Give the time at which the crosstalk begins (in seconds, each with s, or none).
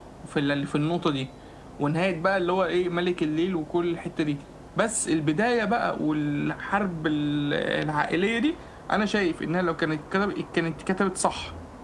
none